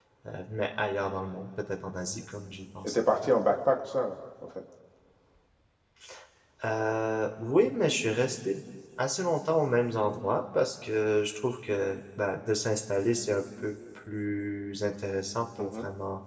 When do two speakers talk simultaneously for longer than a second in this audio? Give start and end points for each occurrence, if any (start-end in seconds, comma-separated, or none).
none